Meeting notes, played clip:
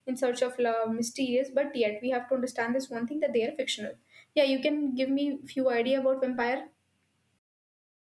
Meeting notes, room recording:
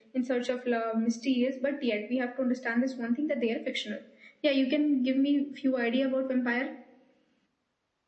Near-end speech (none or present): none